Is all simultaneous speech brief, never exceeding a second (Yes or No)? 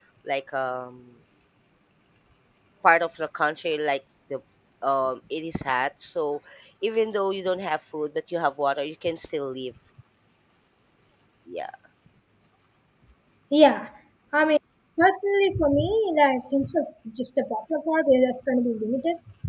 Yes